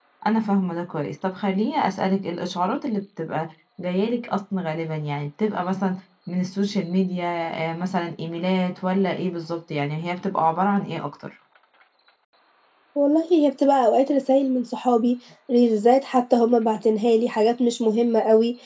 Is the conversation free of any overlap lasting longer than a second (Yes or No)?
Yes